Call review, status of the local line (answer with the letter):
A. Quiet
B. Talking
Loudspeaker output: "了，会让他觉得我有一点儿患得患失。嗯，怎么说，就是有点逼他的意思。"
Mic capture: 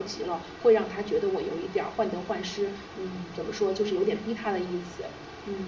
A